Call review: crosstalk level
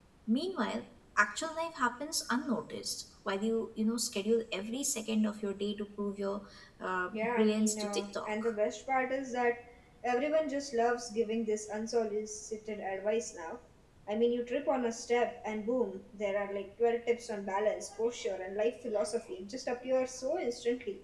present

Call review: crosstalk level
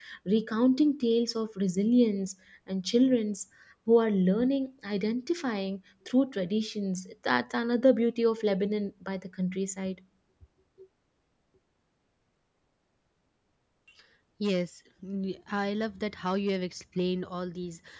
none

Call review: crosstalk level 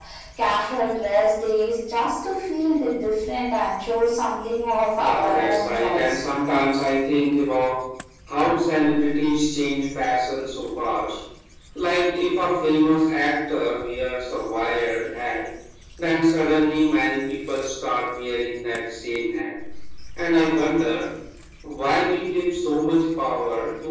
present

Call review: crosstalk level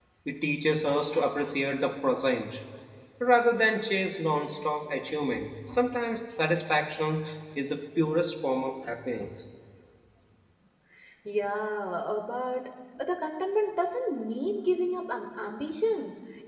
none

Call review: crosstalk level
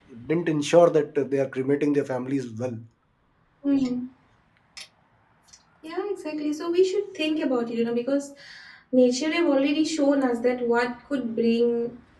none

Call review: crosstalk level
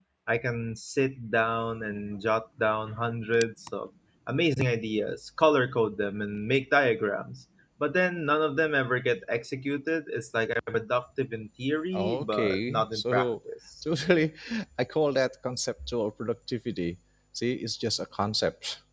present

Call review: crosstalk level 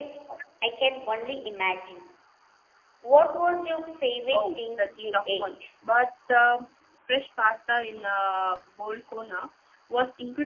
present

